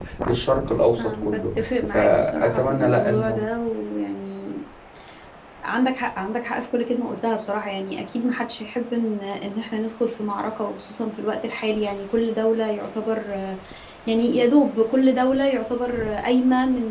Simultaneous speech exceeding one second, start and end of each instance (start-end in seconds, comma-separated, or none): 1.0-3.4